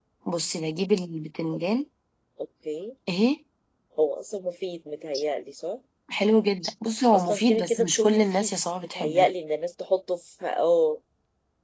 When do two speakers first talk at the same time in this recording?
7.3 s

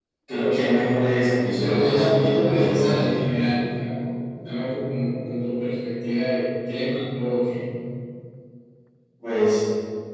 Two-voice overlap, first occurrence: 1.6 s

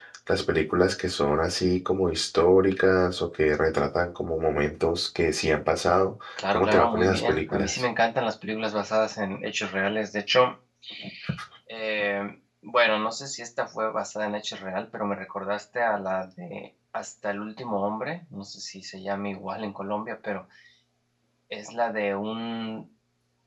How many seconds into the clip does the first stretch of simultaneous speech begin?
6.4 s

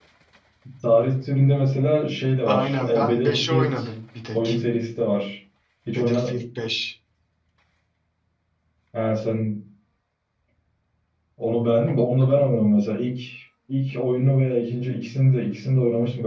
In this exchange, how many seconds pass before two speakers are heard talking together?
2.5 s

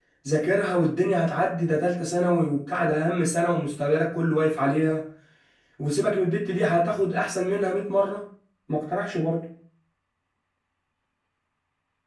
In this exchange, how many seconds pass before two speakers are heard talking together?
none

